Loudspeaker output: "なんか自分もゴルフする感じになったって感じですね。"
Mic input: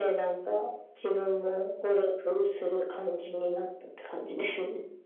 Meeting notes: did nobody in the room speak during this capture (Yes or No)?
Yes